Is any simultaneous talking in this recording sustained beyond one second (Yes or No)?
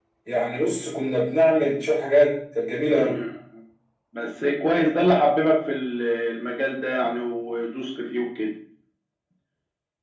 No